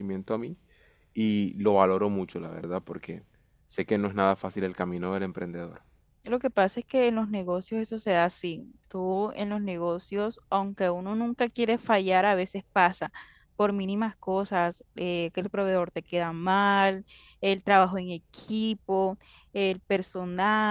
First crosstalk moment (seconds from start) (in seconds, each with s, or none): none